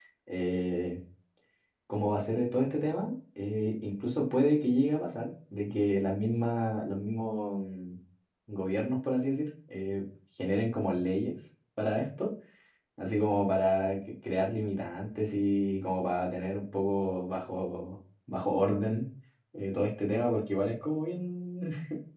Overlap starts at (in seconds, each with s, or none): none